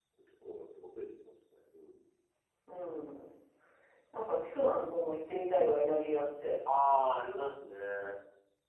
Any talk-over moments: No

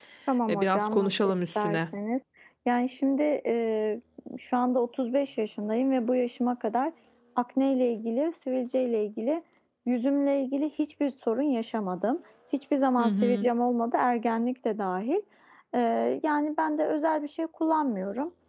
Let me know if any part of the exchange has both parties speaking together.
Yes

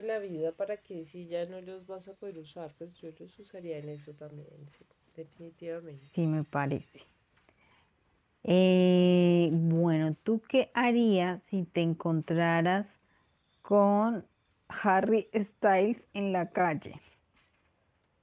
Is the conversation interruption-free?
Yes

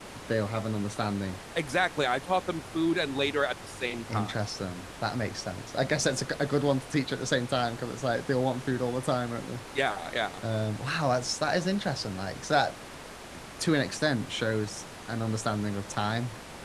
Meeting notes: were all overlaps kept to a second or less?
Yes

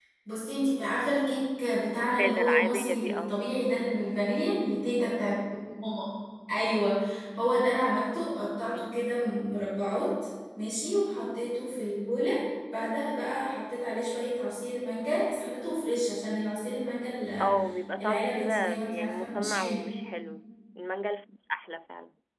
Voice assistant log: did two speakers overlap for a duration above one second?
Yes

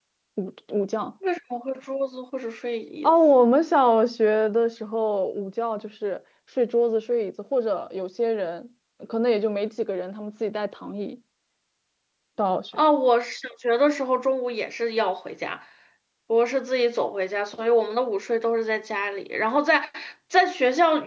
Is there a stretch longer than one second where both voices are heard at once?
No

